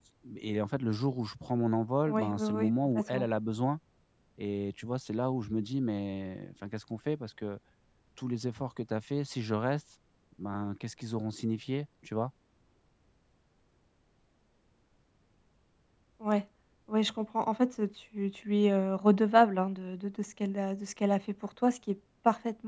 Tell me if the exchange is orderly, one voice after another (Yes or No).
No